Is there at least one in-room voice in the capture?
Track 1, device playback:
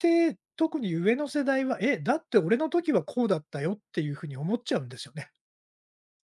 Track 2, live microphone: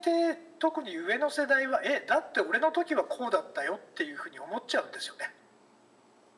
No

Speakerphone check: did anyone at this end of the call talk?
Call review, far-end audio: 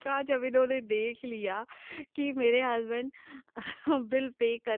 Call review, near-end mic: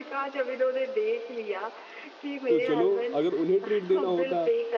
Yes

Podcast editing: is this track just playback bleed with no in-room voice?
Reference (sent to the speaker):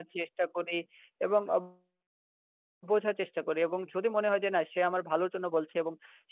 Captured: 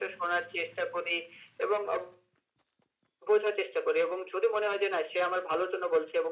Yes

